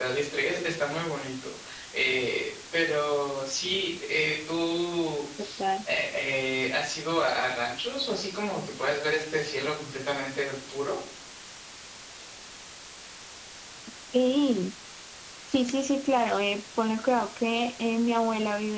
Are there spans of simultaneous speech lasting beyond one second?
No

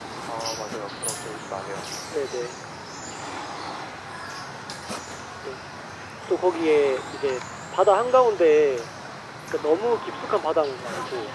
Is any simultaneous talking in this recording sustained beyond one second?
No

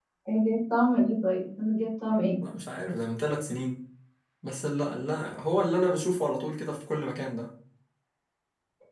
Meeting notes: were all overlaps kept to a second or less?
Yes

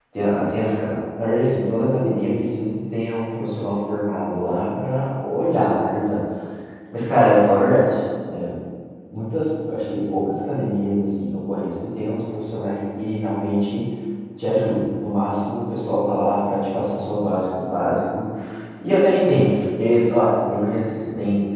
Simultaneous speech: No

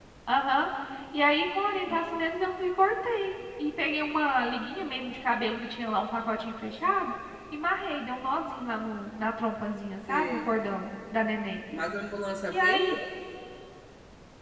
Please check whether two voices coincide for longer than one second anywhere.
No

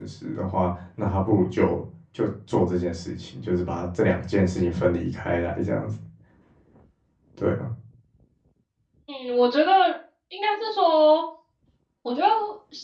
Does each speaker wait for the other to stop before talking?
Yes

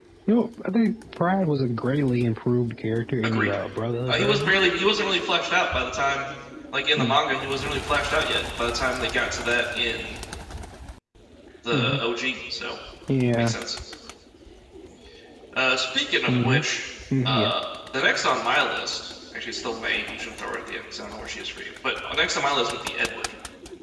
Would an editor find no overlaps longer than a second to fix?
Yes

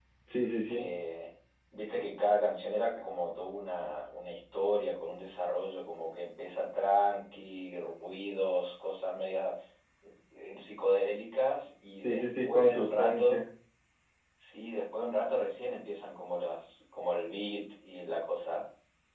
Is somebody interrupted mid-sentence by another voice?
Yes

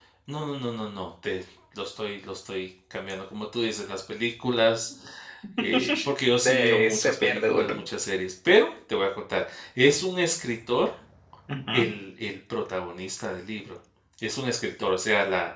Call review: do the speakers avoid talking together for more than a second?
No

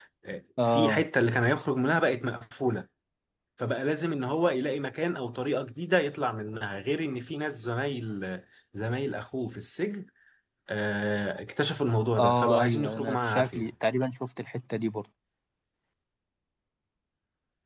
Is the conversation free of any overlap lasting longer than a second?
No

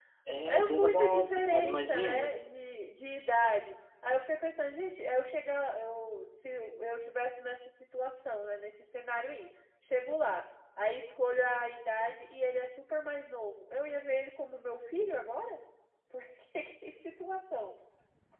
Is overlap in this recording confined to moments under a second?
No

